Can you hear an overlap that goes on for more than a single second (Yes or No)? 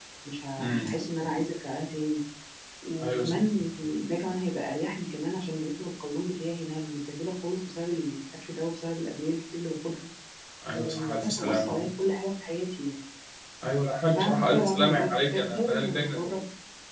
Yes